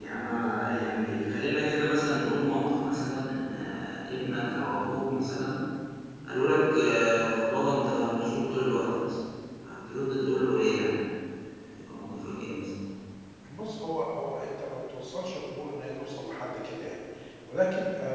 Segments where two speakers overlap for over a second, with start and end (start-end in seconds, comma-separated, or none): none